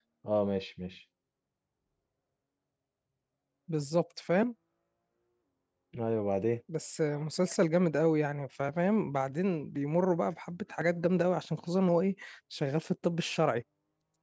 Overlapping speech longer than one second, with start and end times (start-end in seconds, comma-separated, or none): none